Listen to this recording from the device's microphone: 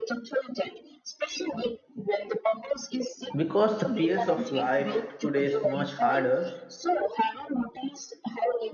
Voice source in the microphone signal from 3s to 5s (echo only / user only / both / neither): both